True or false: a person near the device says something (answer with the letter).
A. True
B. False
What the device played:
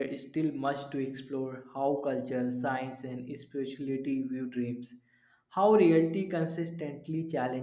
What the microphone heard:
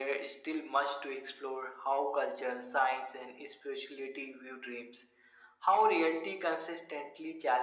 B